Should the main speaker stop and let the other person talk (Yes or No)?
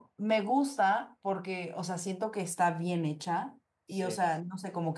No